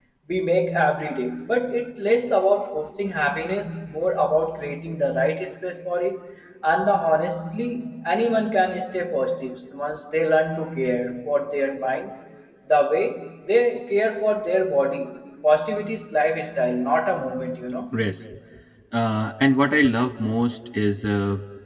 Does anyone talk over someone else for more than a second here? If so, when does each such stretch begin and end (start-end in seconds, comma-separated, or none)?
none